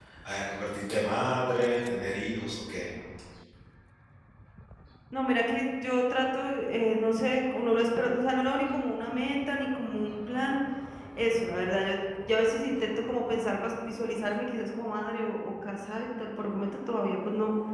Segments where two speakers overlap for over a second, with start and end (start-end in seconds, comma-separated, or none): none